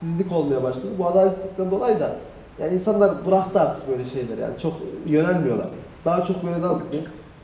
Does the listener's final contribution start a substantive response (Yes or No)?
No